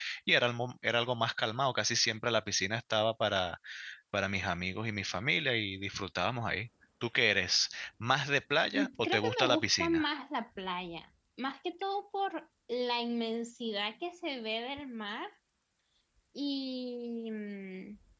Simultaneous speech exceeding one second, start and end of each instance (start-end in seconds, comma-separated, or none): 8.7-10.0